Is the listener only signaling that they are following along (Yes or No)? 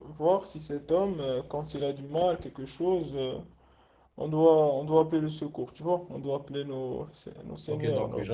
No